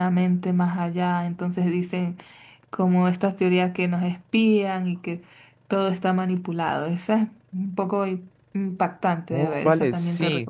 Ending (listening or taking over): taking over